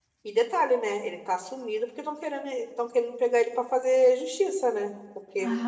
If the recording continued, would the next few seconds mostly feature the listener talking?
Yes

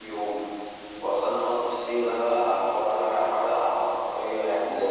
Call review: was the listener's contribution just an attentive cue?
No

